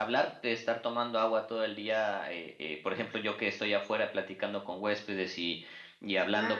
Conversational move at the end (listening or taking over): listening